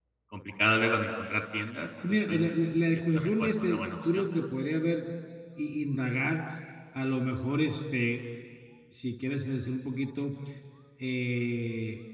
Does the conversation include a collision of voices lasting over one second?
Yes, from 2.0 s

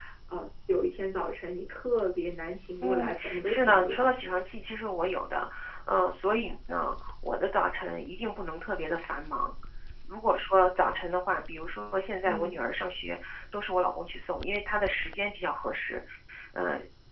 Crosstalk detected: Yes, from 2.8 s

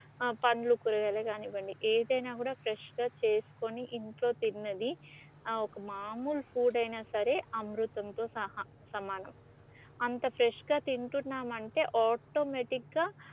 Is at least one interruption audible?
No

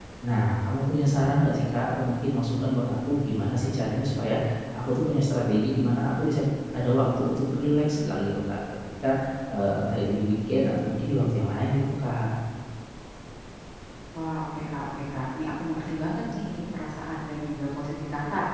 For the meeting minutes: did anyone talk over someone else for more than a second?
No

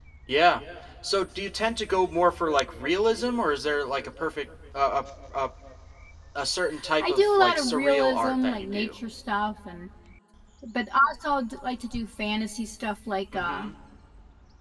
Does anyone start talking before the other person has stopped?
Yes, from 7.0 s

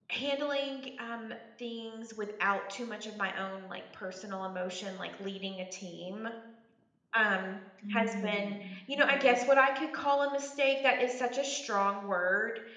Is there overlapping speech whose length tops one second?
Yes, from 7.9 s

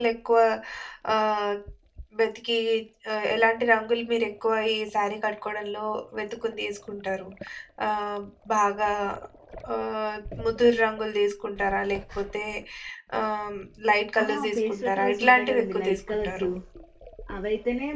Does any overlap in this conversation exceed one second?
Yes, from 14.2 s

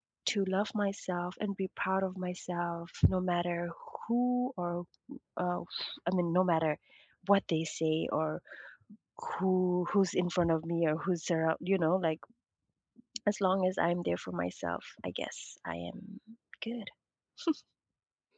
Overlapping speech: No

